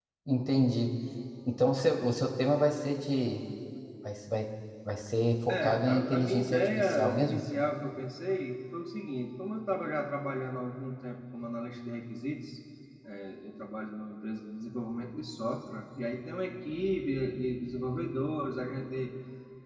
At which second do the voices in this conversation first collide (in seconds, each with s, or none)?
5.5 s